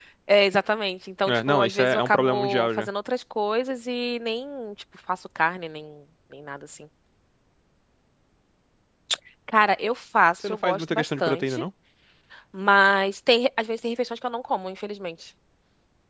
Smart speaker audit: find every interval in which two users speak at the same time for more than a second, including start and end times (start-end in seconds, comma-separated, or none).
1.3-2.9, 10.4-11.6